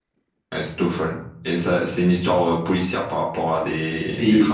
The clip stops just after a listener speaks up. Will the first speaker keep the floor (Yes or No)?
No